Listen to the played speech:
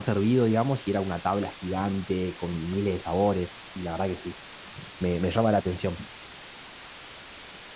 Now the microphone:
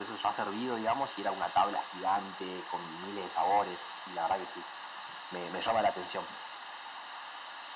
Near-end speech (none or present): none